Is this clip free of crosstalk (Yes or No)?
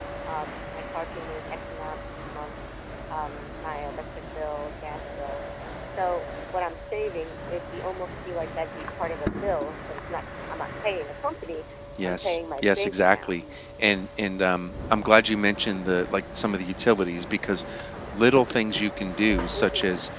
No